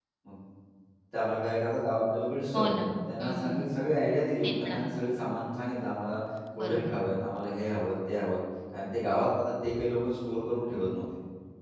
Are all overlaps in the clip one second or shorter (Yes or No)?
Yes